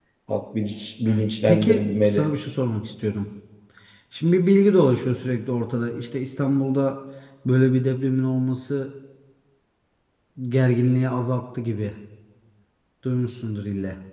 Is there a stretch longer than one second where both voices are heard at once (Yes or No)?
Yes